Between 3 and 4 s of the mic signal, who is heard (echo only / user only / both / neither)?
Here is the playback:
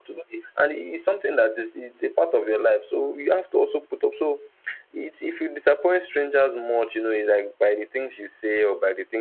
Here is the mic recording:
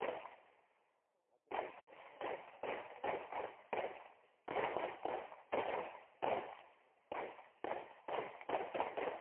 neither